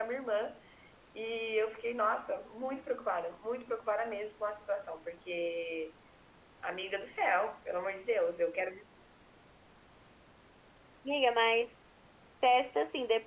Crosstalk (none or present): none